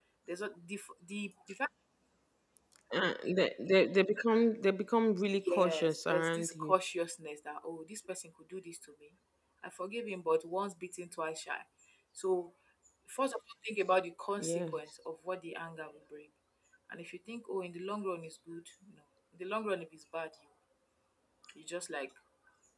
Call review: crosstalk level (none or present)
present